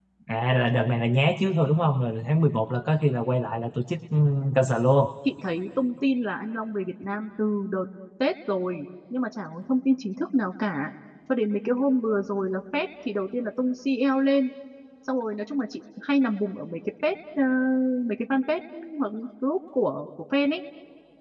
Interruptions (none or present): none